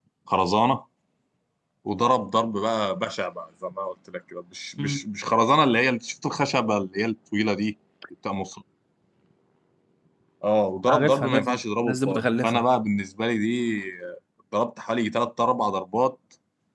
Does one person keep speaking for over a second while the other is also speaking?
Yes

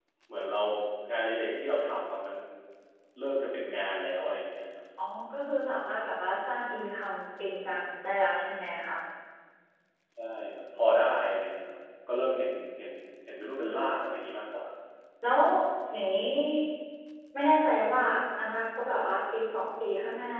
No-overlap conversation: Yes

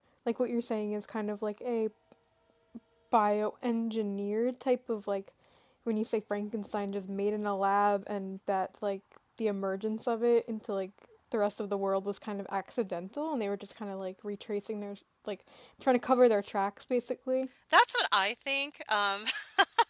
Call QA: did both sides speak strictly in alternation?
Yes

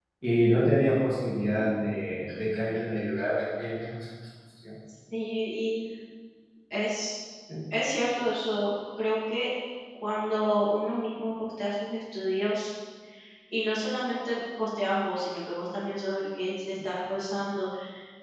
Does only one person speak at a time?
Yes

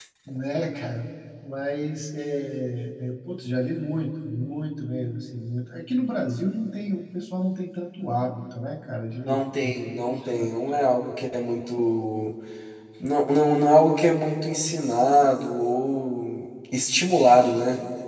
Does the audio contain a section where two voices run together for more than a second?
Yes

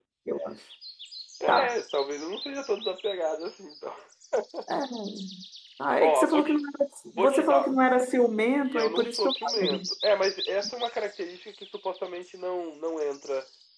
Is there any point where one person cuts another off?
Yes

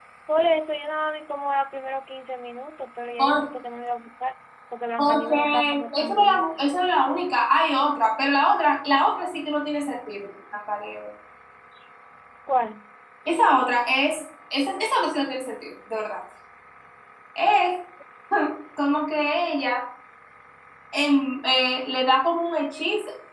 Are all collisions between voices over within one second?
No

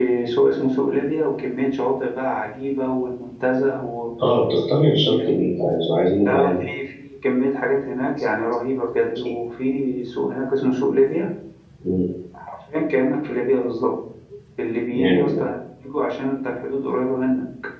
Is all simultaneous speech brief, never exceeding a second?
Yes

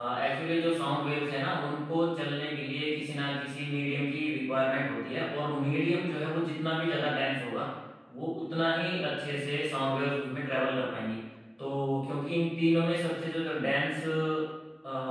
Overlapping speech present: No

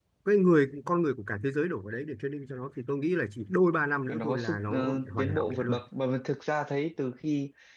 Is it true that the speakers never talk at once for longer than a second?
No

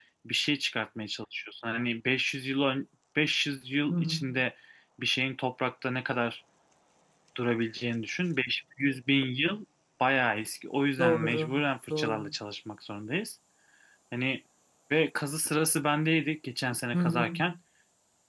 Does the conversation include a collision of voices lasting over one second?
Yes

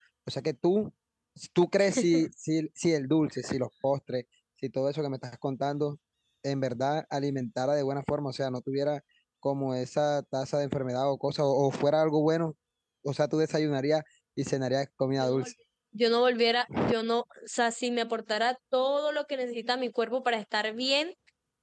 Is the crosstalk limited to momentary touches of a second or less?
Yes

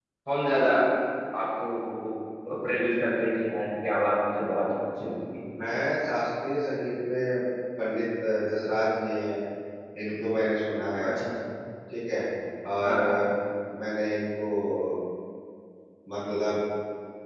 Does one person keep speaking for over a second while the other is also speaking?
No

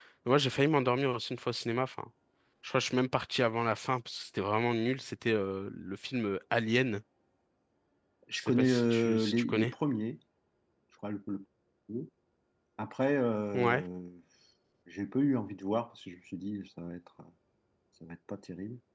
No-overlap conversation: No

